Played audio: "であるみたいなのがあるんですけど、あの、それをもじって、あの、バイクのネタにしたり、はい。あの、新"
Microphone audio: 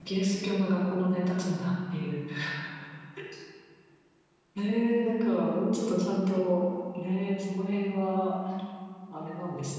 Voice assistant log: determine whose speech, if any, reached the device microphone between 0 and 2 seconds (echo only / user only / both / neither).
user only